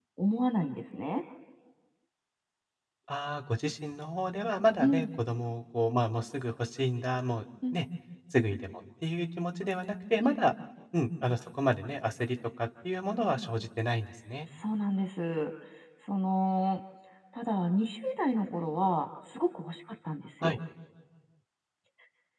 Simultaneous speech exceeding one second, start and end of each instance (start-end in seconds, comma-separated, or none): none